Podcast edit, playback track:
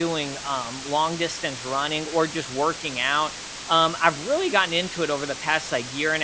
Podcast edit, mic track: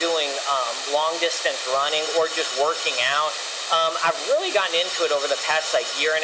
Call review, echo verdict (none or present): present